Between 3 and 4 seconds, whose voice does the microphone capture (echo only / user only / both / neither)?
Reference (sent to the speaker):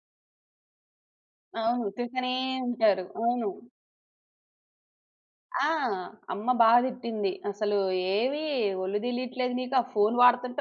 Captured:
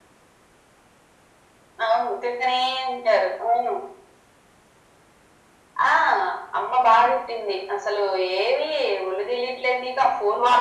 echo only